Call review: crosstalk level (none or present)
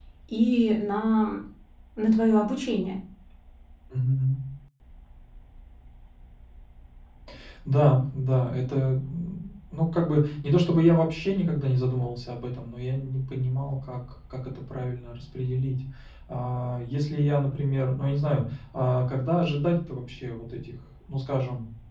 none